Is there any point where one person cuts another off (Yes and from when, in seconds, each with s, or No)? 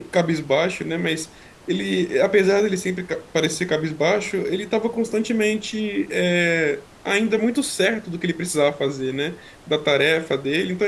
No